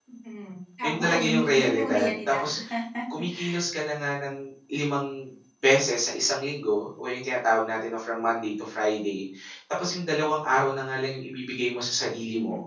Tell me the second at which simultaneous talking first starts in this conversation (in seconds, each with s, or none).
0.8 s